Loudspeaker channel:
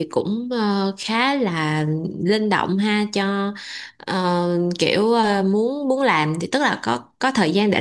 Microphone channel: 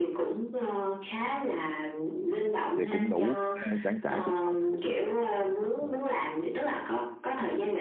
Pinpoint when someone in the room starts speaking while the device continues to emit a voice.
2.8 s

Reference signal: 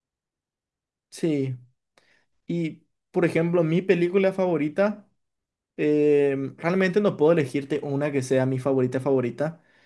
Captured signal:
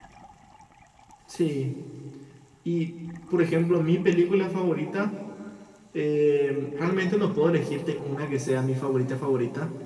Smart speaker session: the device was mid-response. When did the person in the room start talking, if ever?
none

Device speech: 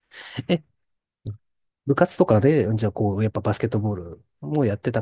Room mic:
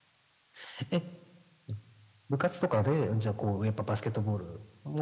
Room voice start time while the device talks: none

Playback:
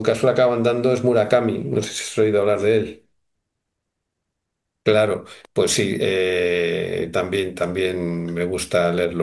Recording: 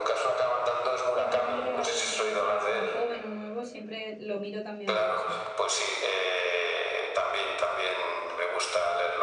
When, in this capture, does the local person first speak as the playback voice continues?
1.1 s

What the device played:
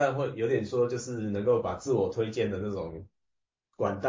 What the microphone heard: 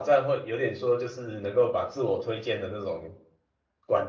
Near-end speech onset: none

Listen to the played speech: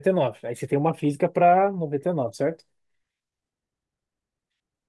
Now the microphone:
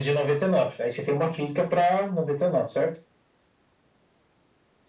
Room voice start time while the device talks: none

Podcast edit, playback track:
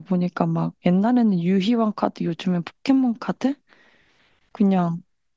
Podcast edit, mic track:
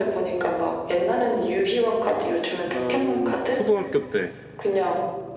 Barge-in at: 2.6 s

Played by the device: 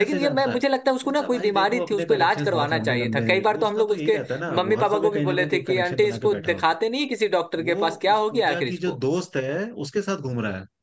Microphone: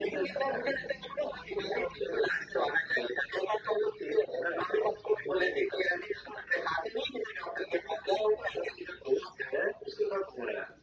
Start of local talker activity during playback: none

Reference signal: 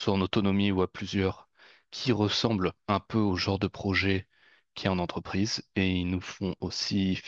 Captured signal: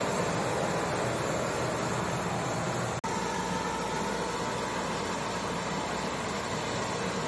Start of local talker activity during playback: none

